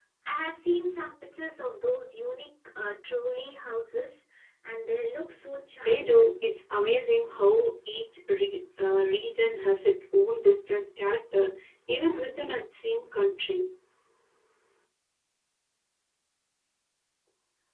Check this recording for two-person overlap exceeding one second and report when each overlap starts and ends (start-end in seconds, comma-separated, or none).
none